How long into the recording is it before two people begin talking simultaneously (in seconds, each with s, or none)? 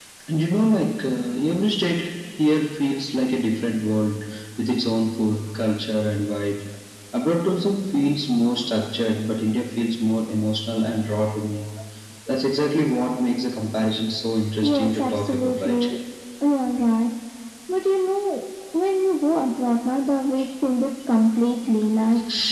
14.6 s